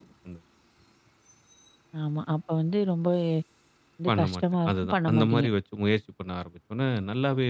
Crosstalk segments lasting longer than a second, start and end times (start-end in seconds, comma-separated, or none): 4.1-5.5